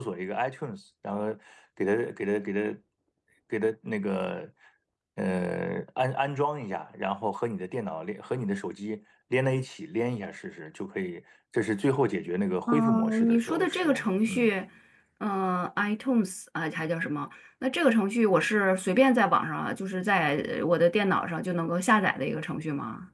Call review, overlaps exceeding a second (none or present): present